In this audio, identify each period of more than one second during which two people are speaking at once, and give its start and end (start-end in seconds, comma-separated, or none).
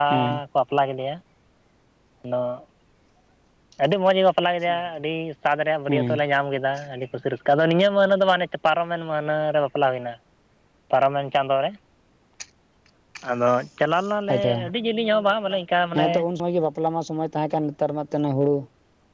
none